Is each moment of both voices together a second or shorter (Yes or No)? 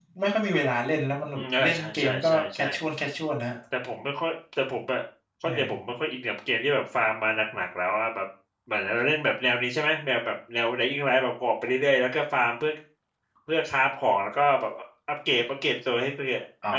No